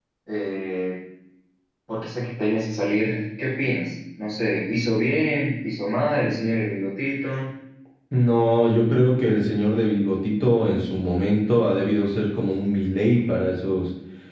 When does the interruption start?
none

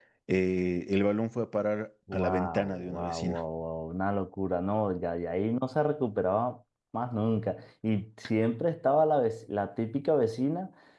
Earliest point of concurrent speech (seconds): 2.1 s

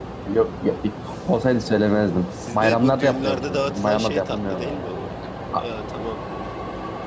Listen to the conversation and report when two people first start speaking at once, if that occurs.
2.5 s

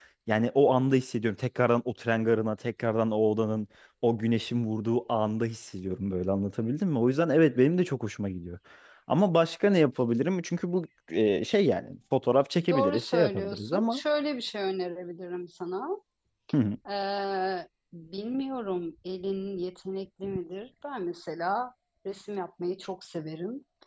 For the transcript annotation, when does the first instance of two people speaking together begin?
12.7 s

